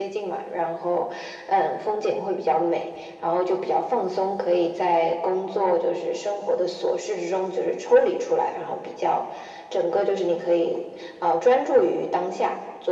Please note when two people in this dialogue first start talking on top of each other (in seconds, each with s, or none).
none